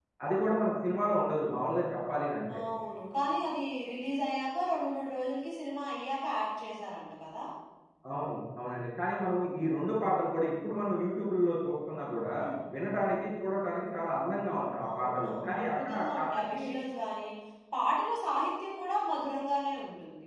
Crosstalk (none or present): present